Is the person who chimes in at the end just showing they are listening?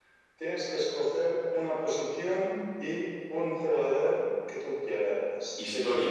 No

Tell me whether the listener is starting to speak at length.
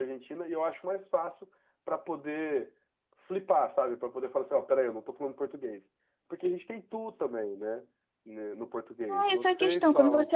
Yes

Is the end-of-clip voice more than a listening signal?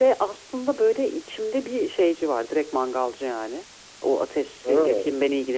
No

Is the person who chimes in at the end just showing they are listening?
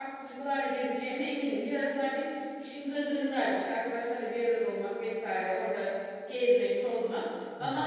Yes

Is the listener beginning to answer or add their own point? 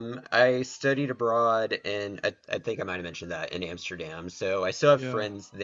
No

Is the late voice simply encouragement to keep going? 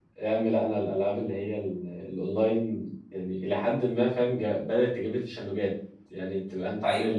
Yes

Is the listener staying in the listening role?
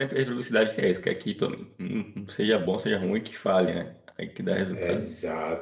No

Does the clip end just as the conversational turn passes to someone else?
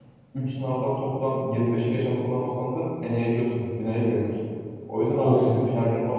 No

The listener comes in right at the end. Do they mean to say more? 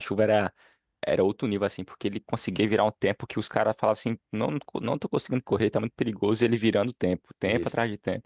Yes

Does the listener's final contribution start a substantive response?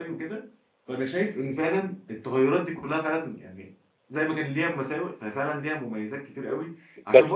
No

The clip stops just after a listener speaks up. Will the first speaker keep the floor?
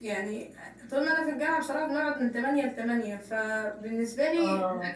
Yes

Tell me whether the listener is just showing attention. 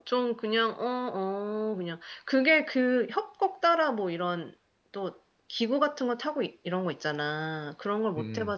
Yes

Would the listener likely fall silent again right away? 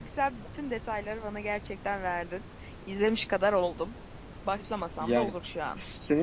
No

